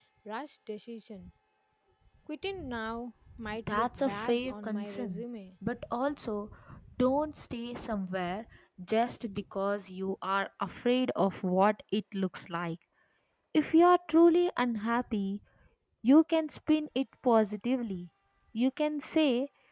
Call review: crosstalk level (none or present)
present